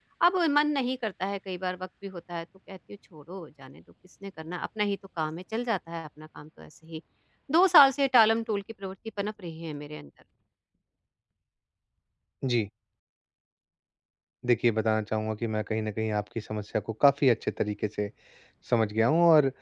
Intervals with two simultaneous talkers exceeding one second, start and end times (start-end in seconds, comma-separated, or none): none